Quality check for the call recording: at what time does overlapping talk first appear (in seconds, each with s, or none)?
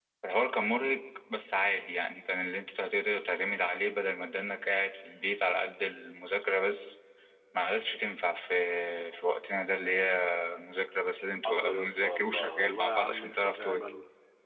11.4 s